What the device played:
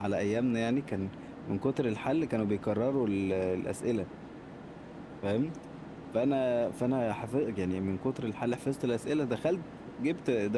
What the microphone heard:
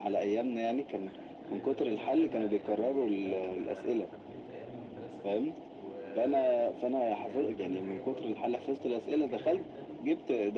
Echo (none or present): present